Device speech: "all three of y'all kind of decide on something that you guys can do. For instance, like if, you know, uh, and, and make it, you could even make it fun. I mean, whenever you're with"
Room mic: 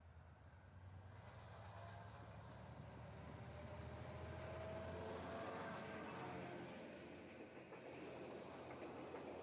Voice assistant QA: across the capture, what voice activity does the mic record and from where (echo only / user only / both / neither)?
neither